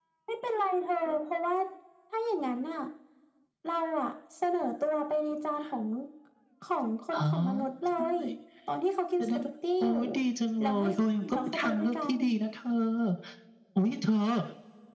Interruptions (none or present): present